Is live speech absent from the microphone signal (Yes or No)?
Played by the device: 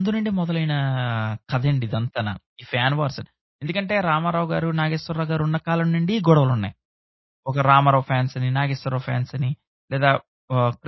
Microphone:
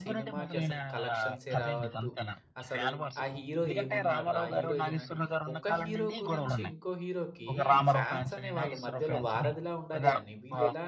No